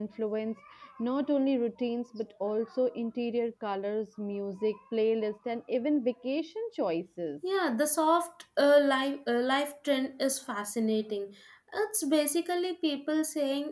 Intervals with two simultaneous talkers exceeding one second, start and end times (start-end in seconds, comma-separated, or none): none